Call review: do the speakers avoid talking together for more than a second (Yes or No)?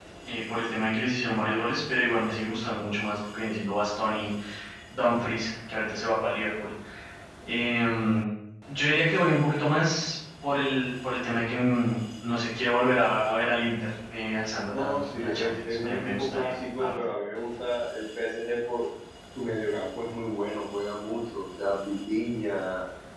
No